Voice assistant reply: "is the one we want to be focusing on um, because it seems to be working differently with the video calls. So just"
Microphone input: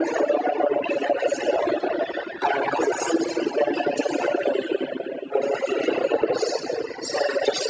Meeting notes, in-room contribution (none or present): none